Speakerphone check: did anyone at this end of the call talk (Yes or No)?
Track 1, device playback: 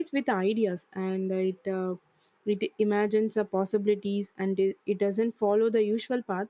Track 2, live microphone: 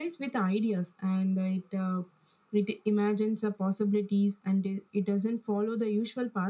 No